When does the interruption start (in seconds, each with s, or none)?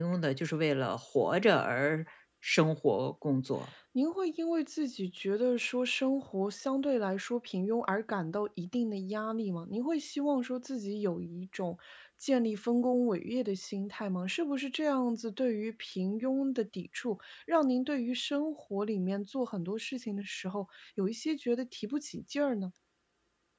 none